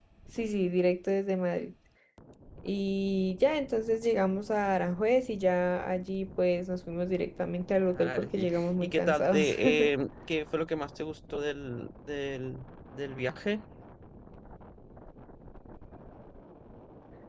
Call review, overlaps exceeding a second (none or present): present